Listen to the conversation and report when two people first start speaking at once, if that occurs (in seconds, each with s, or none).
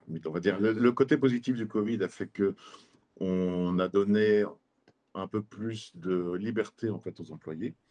none